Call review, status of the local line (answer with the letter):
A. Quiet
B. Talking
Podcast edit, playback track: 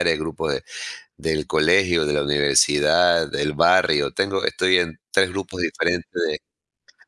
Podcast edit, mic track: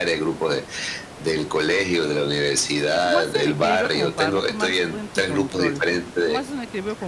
B